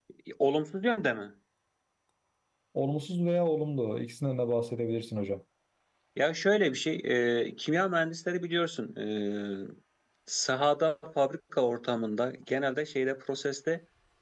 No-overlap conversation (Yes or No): Yes